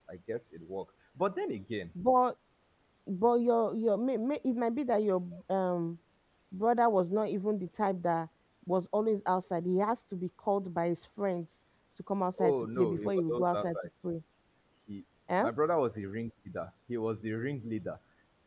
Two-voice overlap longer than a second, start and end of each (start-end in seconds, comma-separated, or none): 12.4-13.8